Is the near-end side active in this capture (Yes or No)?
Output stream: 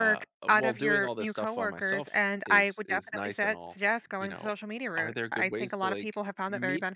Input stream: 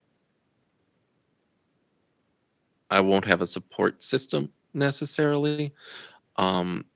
Yes